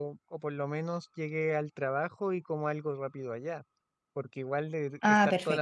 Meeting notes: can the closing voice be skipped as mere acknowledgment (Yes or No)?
Yes